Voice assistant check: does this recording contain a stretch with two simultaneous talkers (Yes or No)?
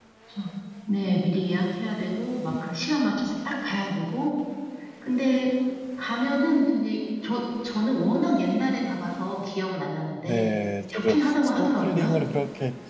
Yes